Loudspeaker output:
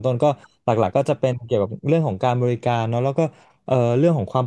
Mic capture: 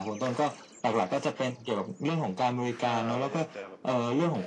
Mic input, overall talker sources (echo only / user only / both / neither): both